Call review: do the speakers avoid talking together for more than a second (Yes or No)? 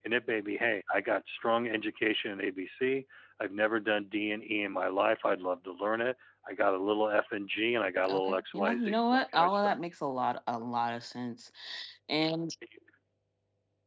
No